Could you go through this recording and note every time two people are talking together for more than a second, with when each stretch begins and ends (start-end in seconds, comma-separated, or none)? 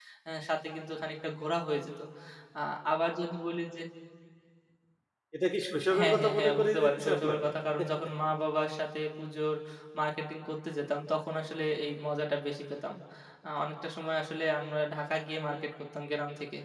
6.0-7.5